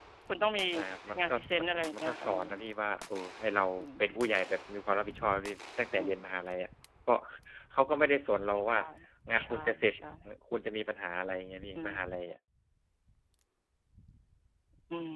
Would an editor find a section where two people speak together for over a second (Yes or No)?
Yes